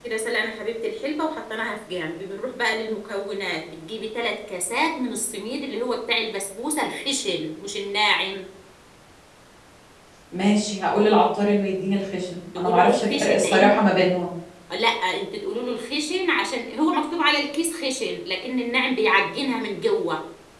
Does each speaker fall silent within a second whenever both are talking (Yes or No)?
No